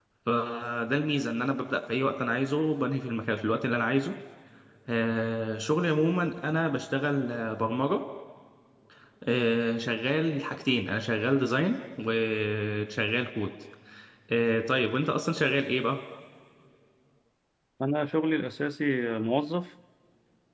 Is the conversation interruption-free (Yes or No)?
Yes